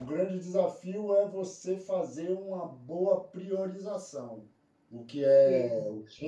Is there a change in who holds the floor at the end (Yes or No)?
No